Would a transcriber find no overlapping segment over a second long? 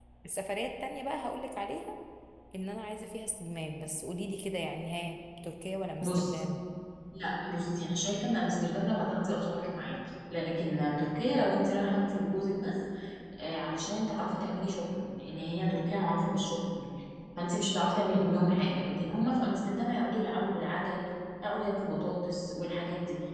Yes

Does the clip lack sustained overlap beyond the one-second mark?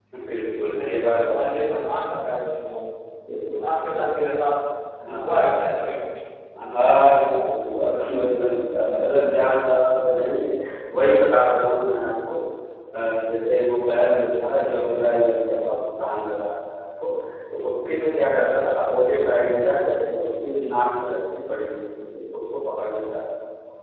No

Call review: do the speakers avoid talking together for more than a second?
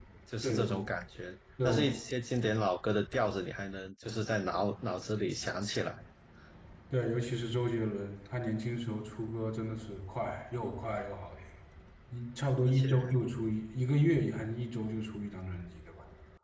Yes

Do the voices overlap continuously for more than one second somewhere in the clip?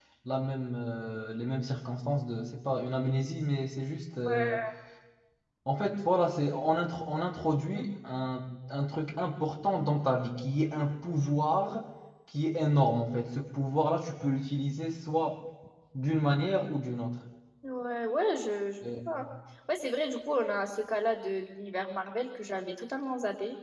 No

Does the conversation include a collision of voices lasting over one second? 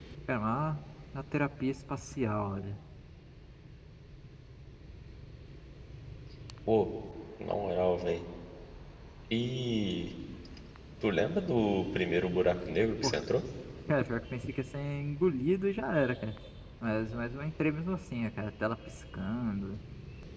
No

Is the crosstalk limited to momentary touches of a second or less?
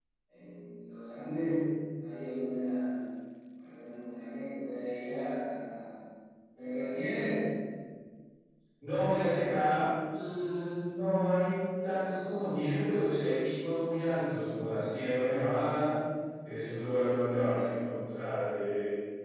Yes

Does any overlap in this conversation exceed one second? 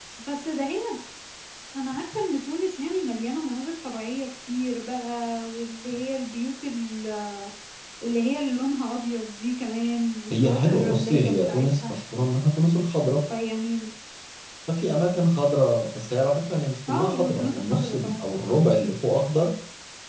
Yes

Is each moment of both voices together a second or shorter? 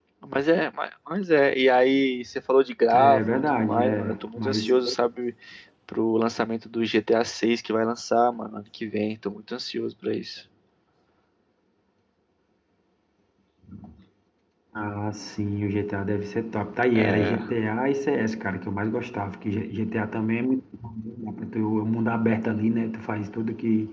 No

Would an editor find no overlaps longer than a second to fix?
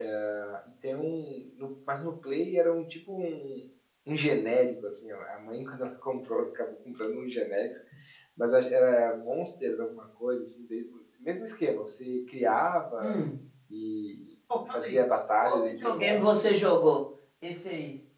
No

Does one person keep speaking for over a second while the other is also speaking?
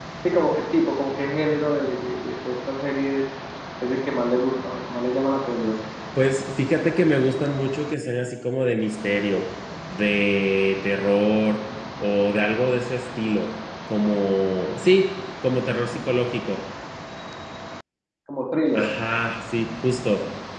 No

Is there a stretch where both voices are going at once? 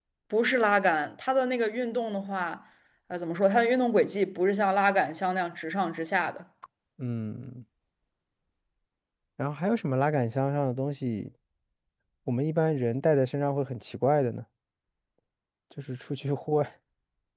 No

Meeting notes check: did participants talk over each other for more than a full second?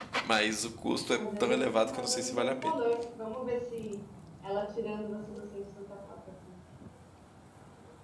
Yes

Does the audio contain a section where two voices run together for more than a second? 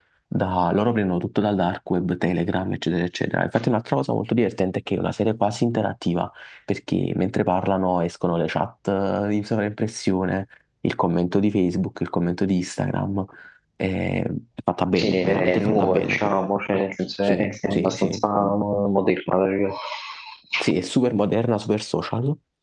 Yes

